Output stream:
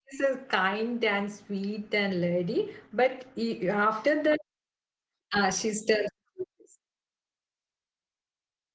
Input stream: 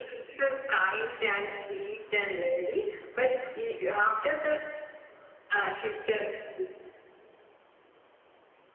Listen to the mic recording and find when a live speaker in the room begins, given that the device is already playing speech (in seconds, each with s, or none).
none